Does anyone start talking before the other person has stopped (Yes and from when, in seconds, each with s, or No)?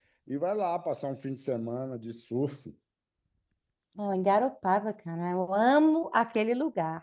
No